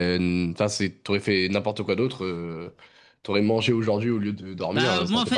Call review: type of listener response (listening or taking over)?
taking over